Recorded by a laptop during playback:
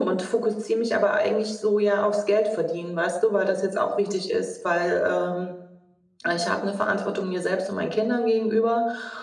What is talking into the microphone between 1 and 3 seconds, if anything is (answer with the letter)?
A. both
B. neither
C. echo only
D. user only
C